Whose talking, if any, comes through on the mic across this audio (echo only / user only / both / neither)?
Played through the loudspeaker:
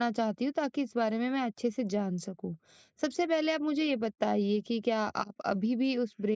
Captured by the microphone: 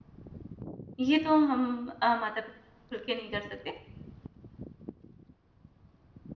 user only